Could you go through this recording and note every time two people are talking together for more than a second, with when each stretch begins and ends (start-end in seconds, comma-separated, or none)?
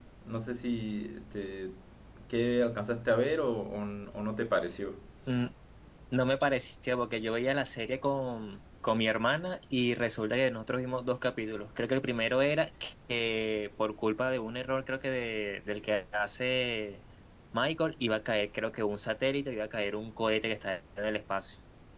none